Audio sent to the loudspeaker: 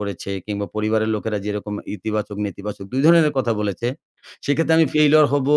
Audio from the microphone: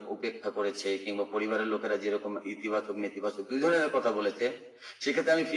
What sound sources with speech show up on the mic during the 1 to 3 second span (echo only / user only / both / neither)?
echo only